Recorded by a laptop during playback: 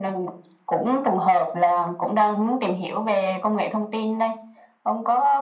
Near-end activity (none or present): none